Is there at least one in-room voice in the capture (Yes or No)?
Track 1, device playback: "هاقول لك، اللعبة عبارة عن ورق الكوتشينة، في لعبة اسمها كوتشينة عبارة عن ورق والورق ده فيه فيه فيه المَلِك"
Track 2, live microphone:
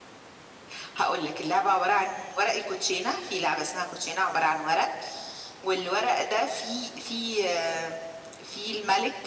No